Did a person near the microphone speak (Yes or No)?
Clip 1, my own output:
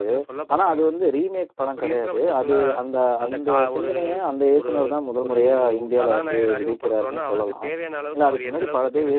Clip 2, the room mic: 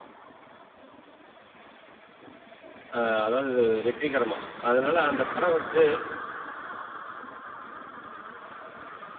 Yes